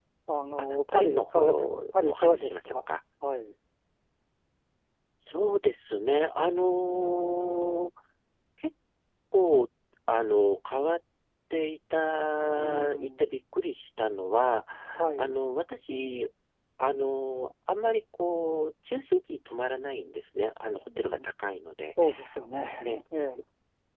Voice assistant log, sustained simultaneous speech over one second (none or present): present